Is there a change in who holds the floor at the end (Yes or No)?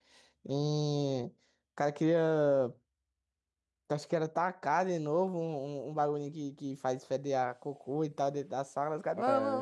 Yes